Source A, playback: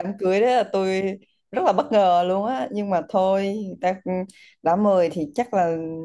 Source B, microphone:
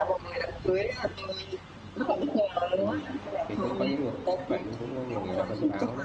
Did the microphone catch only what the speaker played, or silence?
No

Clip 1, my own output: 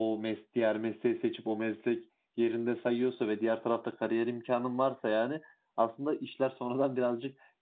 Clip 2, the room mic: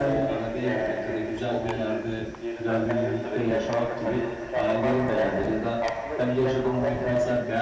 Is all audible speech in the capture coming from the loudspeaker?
No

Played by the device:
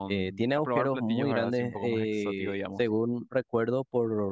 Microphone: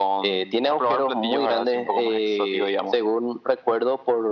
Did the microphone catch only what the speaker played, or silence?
Yes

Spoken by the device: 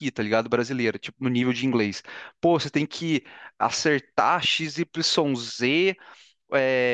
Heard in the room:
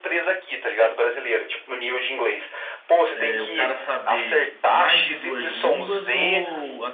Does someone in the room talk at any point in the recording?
Yes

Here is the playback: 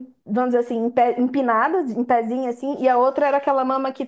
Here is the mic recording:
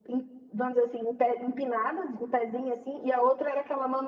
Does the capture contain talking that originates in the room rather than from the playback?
No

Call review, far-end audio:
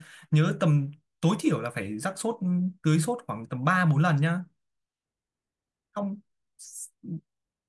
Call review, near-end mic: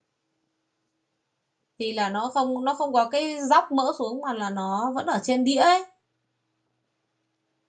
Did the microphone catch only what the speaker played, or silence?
No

